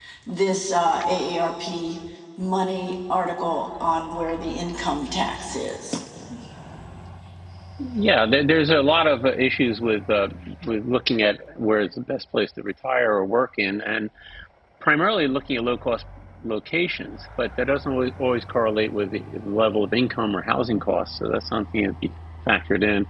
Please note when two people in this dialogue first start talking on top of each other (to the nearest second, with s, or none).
none